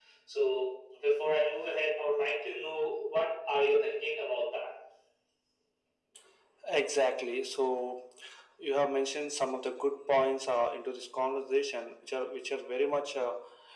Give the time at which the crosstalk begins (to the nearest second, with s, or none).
none